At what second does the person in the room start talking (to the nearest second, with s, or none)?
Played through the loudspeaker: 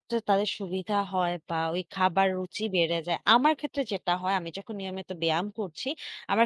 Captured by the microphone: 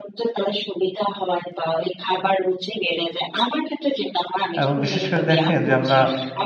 5 s